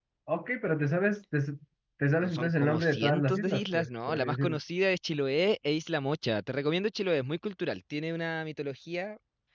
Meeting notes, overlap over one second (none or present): present